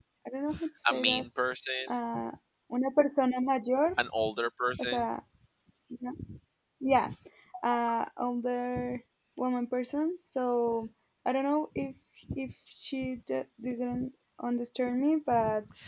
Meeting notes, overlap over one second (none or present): none